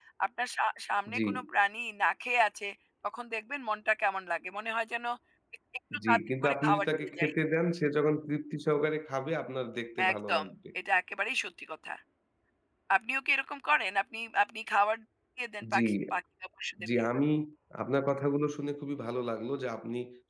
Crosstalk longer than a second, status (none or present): present